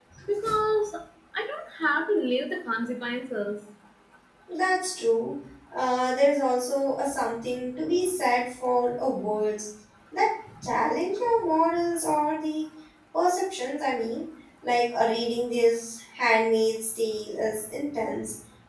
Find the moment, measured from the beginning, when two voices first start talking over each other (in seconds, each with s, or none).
none